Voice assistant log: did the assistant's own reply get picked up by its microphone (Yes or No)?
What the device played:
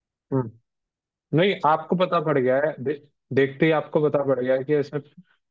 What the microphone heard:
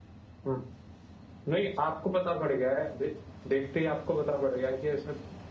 Yes